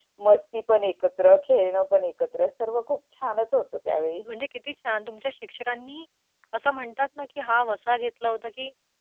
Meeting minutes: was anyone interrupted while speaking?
No

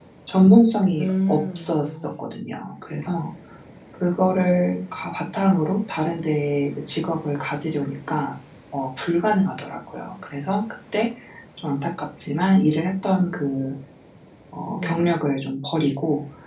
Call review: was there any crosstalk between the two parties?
Yes, from 1.0 s

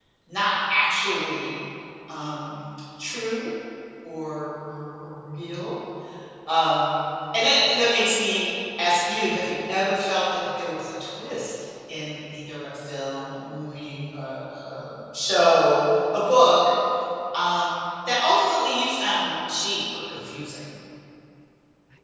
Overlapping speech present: No

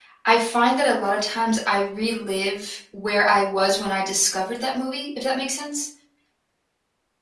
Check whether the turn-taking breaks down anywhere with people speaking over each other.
No

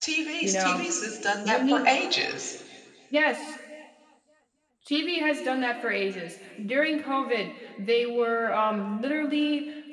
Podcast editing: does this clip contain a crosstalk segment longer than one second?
No

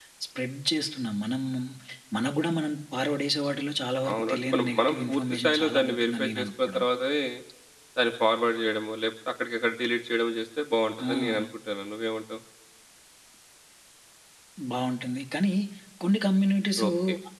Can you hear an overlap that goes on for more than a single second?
Yes, from 4.1 s

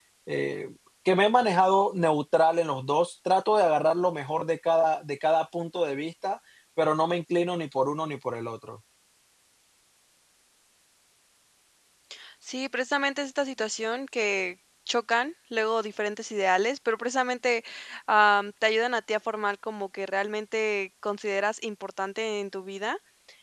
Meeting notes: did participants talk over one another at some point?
No

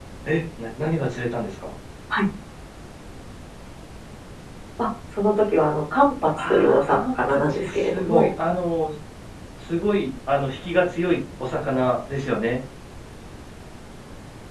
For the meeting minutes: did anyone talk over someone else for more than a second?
Yes, from 6.3 s

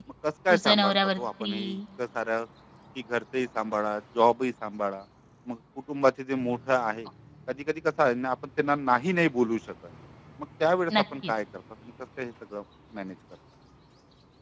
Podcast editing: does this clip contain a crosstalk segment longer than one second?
Yes, from 0.5 s

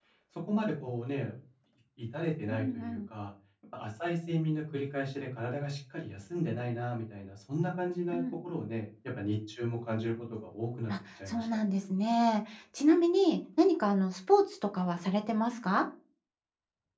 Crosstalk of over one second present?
No

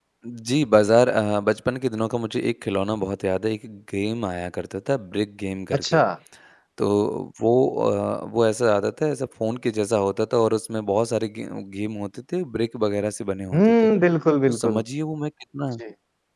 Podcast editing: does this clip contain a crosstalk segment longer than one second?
No

